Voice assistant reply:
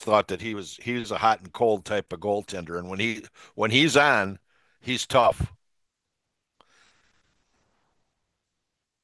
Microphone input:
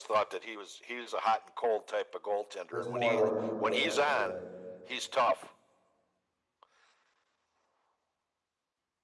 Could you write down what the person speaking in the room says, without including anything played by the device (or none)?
There's more like leeway, I'd say.